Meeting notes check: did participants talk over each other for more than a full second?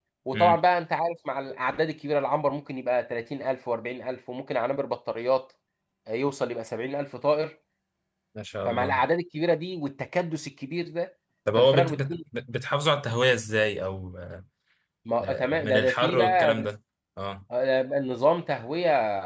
Yes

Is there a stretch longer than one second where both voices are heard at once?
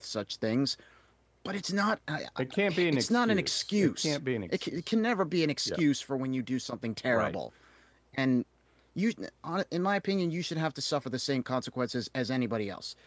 Yes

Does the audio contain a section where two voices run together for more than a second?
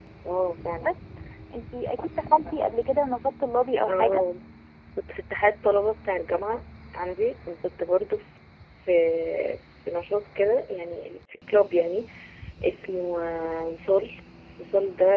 No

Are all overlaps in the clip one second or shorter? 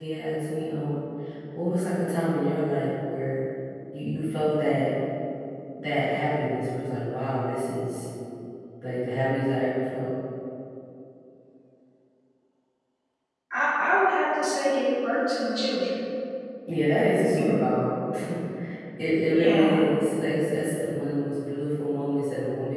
Yes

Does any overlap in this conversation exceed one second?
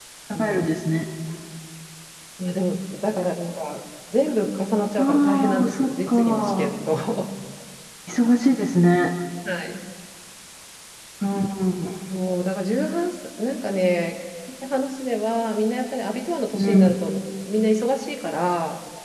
Yes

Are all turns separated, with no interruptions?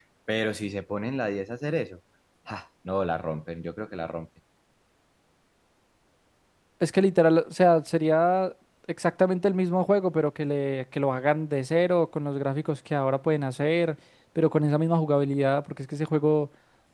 Yes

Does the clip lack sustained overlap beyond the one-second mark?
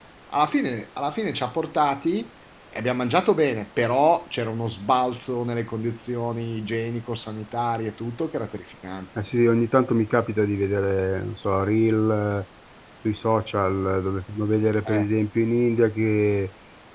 Yes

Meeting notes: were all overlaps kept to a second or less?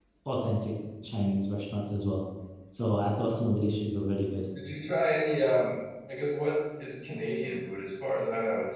Yes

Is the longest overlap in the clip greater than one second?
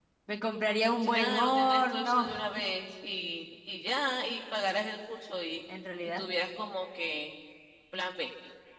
Yes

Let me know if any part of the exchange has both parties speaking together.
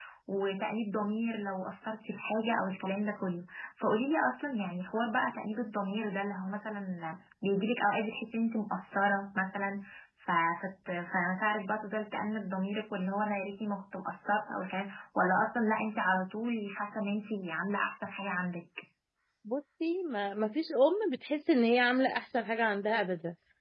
No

